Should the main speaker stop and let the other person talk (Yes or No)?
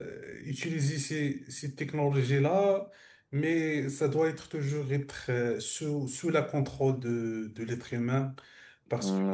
Yes